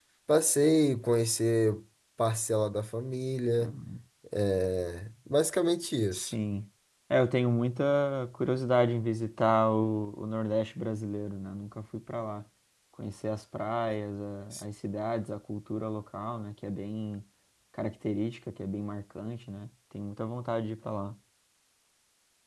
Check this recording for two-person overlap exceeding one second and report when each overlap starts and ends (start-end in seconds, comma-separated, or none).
none